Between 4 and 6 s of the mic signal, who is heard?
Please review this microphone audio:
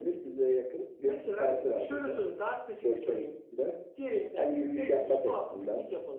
echo only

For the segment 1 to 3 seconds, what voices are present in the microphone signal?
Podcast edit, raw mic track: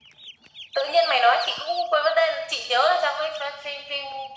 echo only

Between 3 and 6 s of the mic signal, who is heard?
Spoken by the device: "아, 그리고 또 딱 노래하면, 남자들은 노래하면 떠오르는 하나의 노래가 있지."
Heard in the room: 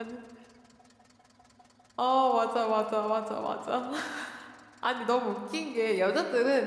user only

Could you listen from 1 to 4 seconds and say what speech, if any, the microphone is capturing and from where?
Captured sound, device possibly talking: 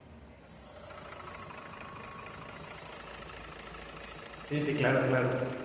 neither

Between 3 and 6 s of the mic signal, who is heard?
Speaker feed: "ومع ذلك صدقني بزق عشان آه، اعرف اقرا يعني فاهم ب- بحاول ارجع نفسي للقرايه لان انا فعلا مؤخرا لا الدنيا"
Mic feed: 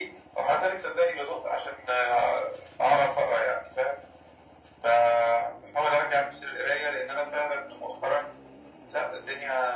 echo only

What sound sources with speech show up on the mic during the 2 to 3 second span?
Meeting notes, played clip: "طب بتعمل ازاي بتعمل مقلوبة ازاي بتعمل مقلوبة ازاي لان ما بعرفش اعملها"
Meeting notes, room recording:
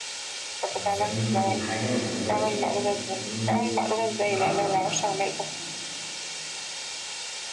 both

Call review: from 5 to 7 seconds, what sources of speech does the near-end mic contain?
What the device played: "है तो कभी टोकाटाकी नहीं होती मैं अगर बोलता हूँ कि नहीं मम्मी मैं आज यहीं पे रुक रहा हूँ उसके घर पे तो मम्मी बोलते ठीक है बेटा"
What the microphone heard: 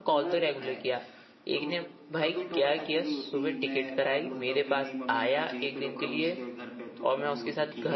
both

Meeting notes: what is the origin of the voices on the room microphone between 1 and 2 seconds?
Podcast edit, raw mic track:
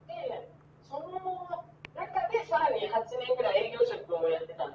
echo only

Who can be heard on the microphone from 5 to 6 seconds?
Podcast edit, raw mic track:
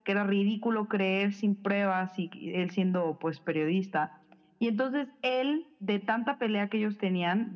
echo only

